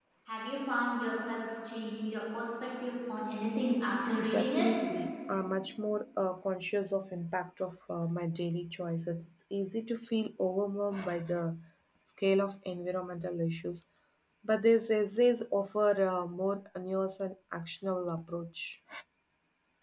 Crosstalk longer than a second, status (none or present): none